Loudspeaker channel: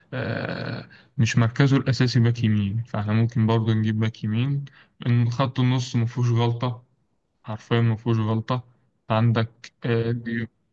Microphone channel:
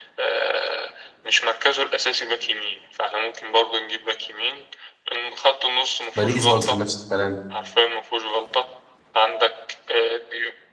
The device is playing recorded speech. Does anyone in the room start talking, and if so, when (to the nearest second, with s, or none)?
6 s